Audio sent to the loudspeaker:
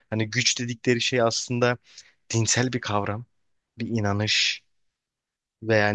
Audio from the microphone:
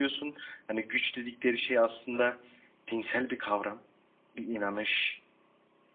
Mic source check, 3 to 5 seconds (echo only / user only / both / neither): echo only